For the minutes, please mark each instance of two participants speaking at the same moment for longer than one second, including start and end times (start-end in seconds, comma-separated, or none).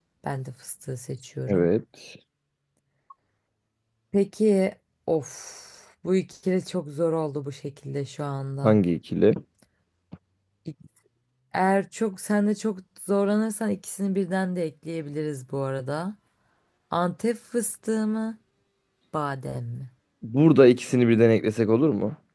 none